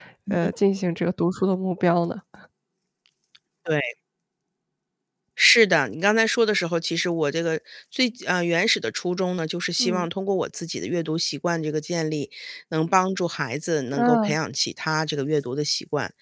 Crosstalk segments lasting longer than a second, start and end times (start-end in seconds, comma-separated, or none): none